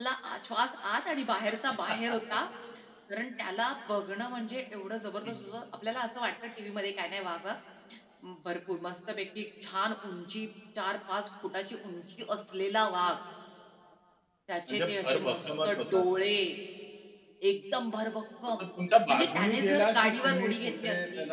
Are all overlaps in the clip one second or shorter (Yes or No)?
No